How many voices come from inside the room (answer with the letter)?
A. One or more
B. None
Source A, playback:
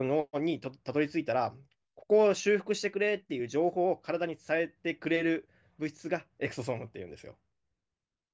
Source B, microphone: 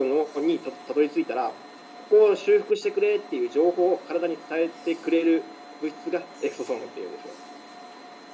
B